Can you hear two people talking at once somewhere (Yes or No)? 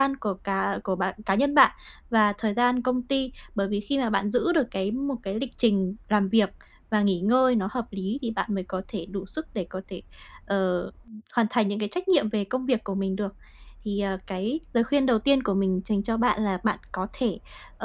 No